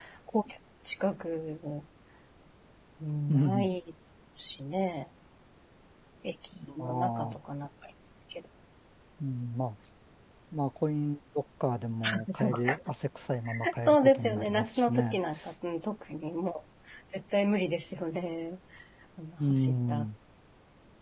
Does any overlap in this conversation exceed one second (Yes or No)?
Yes